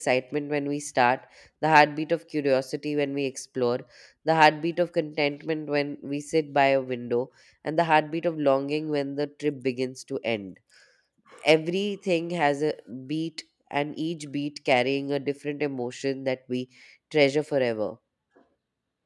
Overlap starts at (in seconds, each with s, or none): none